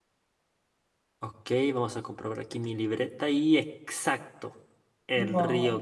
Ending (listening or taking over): listening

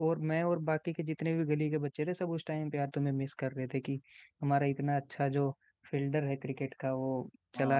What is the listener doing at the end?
listening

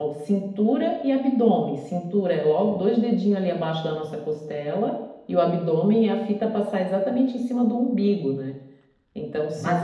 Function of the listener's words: taking over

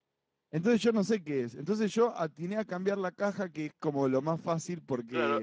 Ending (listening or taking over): taking over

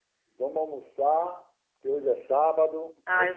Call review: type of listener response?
taking over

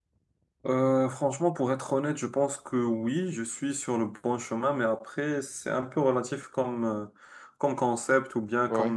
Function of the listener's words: listening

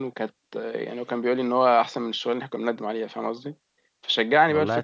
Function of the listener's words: listening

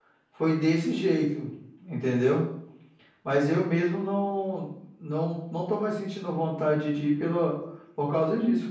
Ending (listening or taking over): taking over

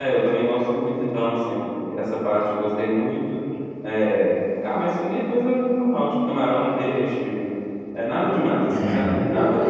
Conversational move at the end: taking over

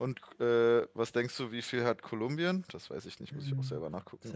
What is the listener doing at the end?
taking over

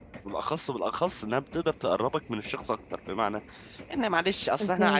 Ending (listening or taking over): listening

